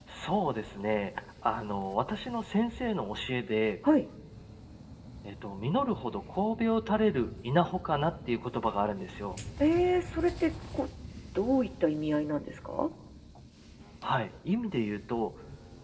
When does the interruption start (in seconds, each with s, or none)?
none